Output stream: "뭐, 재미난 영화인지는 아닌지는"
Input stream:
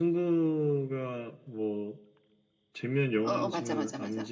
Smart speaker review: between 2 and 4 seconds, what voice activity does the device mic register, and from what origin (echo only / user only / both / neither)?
both